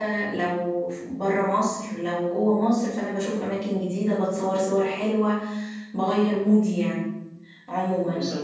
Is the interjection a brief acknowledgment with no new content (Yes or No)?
Yes